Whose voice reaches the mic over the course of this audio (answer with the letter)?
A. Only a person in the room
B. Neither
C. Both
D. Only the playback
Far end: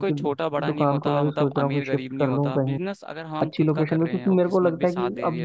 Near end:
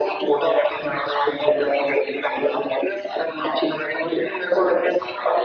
D